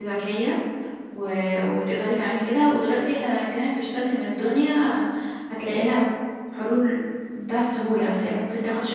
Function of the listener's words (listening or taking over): listening